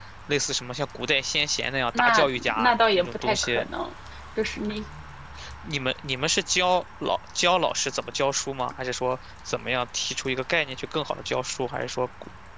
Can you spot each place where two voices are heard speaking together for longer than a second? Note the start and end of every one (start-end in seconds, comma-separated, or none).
2.0-3.6